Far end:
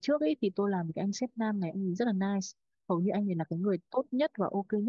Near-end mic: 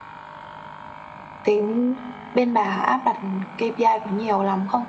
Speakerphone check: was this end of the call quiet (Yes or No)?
No